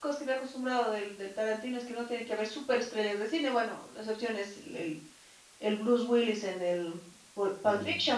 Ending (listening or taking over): listening